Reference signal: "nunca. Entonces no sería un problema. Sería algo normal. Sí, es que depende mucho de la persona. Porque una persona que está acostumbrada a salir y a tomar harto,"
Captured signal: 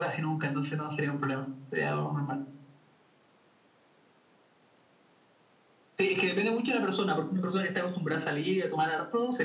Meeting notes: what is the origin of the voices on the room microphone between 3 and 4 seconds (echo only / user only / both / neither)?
neither